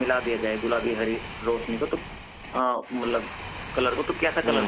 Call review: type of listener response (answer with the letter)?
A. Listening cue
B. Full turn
B